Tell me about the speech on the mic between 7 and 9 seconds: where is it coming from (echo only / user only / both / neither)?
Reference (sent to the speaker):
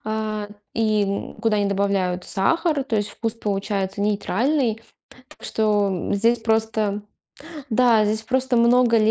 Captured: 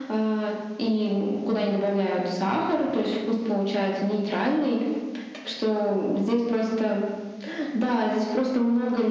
echo only